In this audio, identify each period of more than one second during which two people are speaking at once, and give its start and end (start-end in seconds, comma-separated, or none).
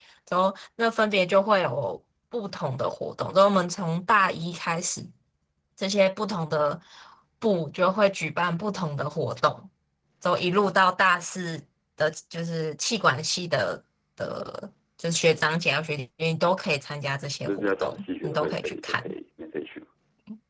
17.4-19.1